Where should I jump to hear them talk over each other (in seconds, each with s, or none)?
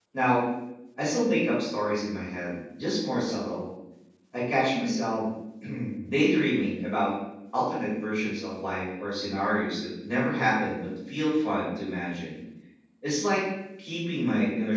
none